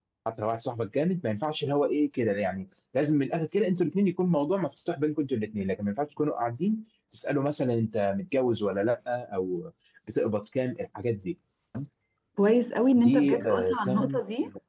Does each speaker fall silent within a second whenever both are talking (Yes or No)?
No